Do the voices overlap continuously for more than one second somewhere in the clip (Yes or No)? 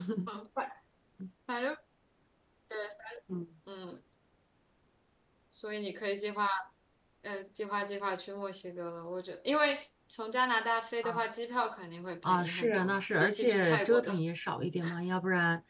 Yes